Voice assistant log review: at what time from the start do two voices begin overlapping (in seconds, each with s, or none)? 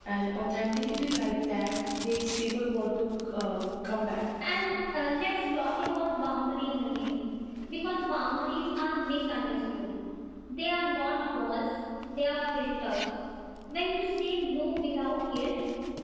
none